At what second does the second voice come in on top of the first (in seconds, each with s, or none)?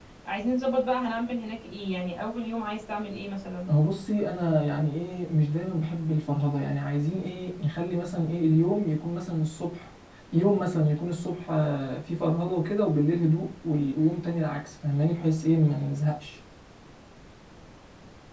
none